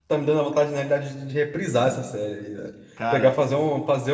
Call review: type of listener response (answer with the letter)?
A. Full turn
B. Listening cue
B